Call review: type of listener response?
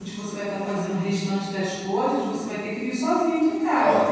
taking over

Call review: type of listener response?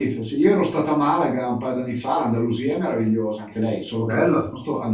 listening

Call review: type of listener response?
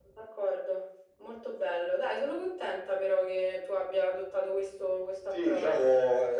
taking over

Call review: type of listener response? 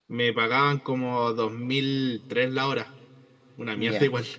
taking over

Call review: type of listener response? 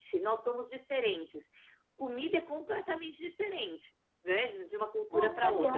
taking over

